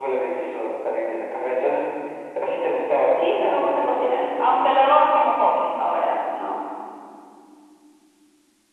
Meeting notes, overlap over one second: present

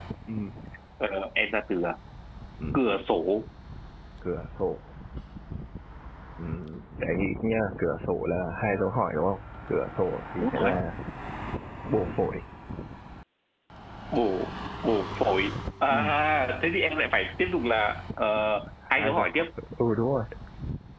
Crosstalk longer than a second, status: none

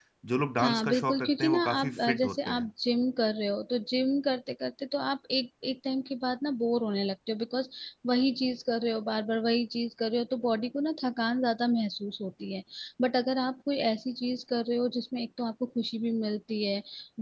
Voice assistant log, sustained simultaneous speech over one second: present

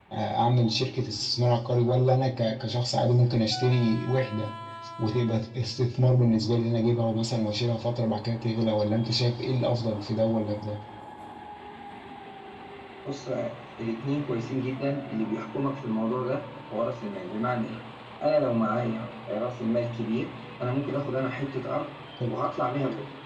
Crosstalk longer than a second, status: none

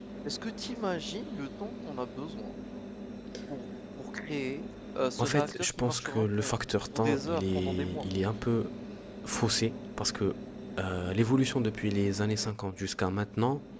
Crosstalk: present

